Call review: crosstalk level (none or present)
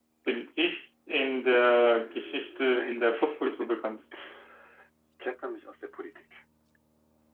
present